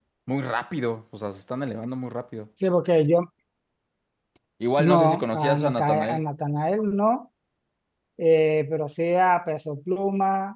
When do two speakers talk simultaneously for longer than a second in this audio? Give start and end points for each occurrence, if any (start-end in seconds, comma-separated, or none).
4.8-6.2